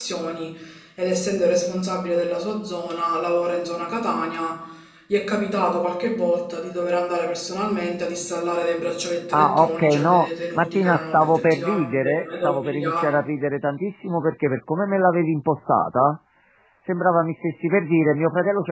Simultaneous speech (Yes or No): Yes